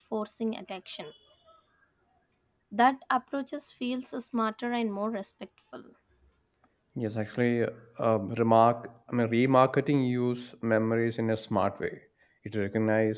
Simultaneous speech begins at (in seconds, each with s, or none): none